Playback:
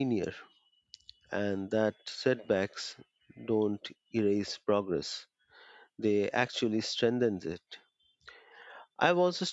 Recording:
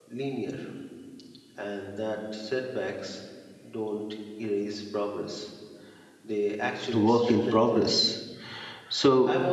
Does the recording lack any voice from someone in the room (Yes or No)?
No